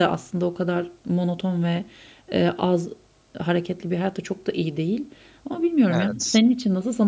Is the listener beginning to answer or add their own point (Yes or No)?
No